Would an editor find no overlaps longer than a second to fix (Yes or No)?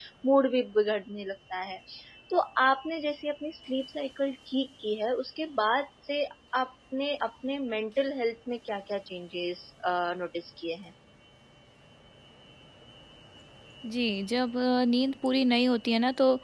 Yes